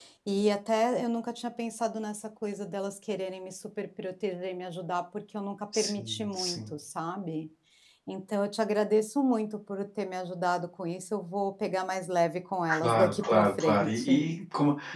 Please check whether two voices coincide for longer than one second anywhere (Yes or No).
Yes